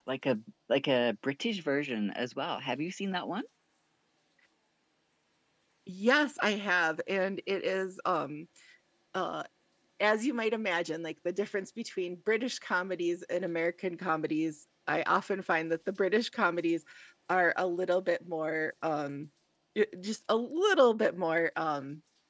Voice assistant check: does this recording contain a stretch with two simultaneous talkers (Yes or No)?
No